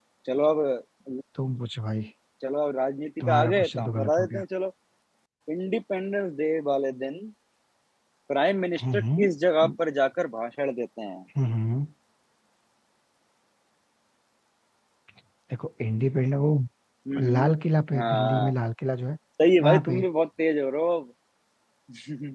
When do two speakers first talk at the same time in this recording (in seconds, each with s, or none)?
3.2 s